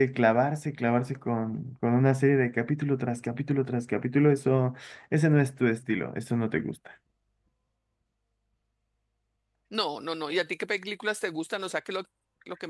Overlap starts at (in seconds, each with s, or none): none